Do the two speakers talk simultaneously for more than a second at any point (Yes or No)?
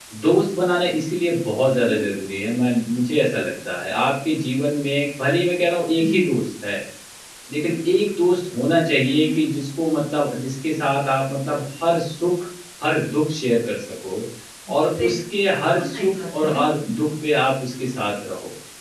Yes